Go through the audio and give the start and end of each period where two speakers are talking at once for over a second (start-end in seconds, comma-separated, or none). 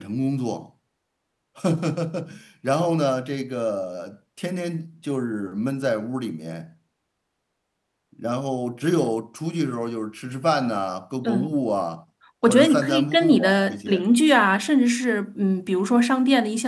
12.5-14.0